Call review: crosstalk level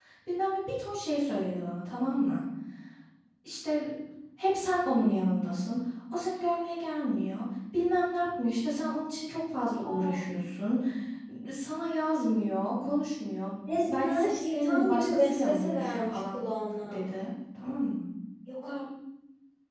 present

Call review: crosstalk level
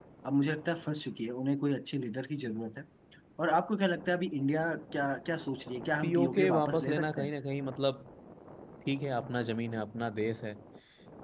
present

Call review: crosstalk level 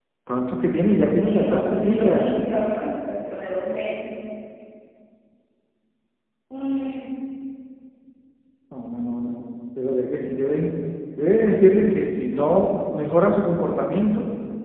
present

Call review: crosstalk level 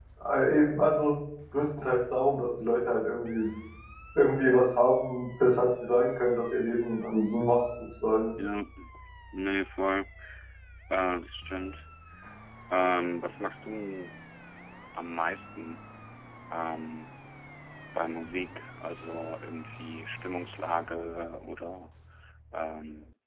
none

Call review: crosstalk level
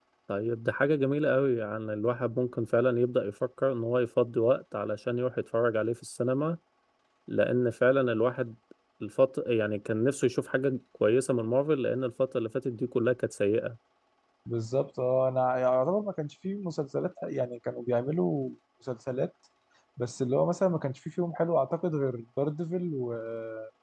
none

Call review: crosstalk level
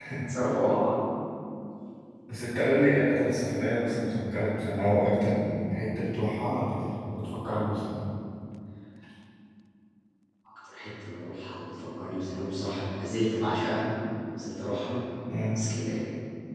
none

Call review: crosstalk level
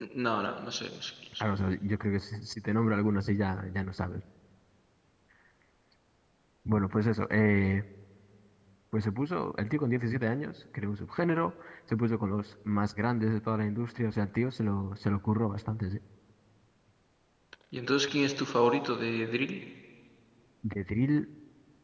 none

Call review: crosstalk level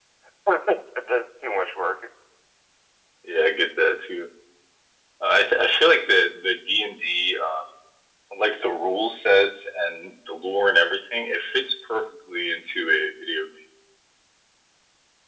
none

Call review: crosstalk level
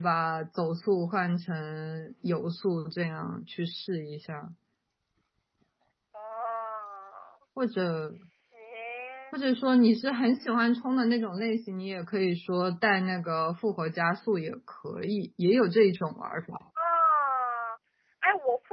none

